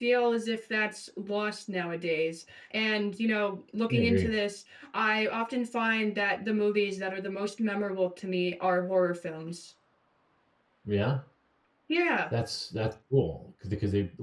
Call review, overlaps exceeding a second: none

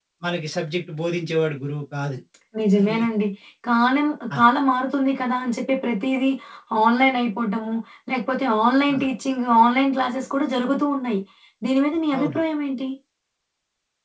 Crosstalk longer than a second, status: none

